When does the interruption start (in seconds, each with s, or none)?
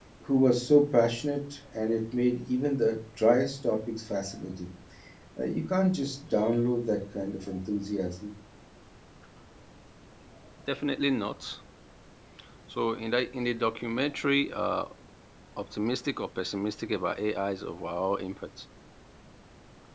none